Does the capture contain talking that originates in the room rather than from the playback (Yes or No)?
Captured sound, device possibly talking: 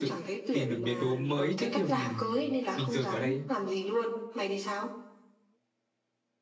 Yes